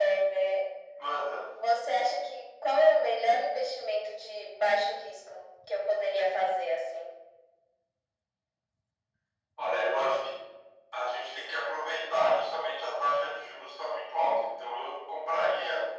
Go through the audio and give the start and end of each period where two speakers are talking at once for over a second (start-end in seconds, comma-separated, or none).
none